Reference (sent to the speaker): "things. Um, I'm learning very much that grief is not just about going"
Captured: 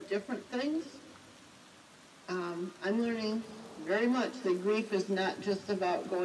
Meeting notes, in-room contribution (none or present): none